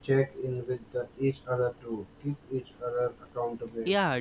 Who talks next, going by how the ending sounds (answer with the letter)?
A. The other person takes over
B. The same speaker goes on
A